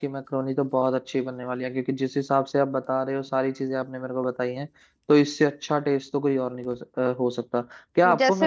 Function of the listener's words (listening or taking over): taking over